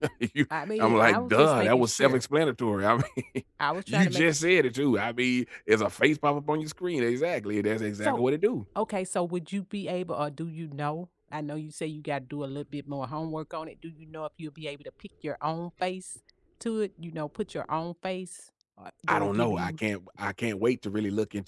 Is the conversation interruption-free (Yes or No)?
No